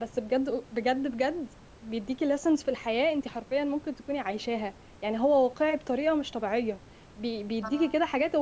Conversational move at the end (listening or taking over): listening